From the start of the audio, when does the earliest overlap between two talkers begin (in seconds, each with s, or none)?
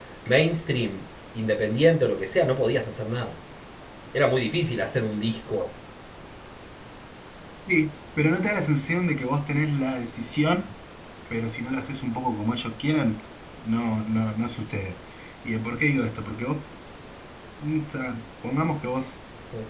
none